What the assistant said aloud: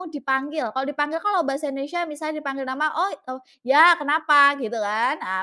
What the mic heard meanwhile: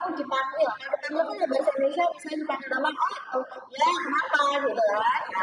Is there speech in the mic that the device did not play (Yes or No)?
No